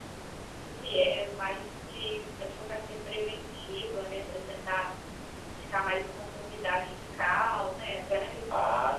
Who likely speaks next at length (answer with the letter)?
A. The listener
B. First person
A